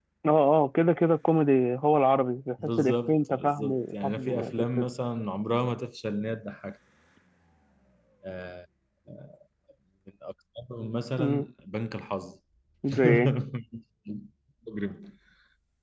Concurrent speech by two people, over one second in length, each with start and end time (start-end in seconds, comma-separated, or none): 2.8-4.9